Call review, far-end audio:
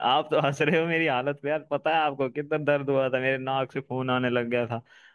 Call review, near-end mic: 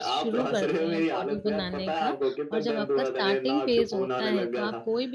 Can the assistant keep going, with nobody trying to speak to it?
No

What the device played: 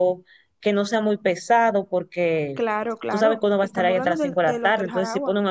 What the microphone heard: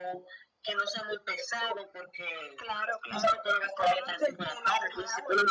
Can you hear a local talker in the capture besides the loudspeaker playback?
No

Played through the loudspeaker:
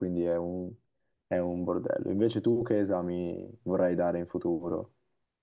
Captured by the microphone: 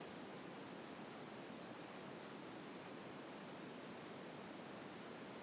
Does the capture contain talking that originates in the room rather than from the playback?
No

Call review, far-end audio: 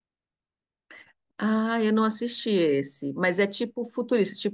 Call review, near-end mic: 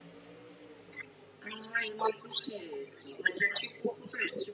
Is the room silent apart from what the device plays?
Yes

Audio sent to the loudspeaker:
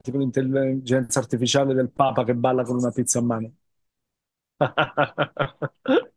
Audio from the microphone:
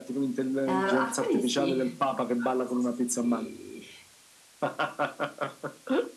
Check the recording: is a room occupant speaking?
Yes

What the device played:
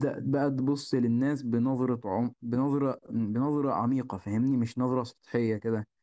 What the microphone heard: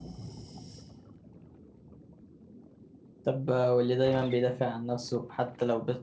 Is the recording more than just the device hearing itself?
Yes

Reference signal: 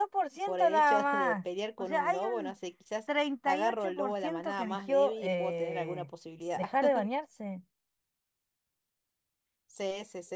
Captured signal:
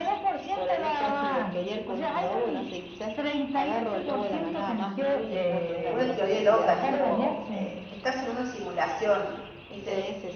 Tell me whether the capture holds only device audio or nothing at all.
No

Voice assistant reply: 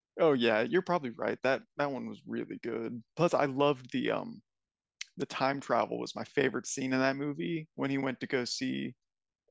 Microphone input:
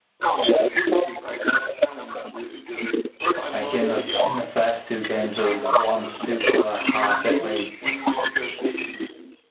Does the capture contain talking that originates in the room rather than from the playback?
Yes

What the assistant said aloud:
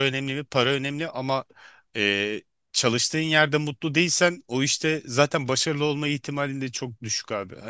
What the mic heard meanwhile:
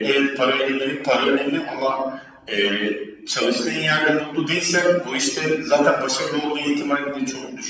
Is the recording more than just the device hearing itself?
No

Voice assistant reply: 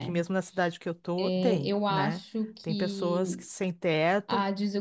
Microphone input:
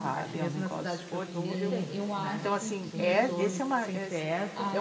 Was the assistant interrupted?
Yes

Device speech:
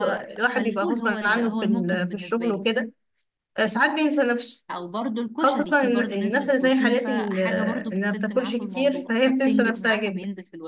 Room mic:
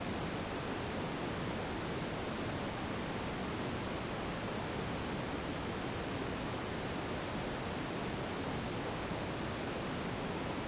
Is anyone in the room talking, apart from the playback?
No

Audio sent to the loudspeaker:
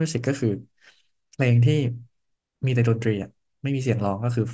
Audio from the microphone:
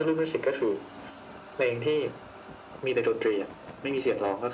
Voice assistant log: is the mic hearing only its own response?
Yes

